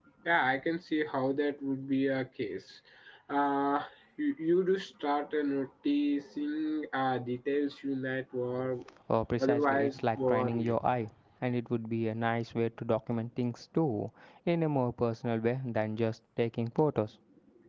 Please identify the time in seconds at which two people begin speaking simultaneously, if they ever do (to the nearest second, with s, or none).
9 s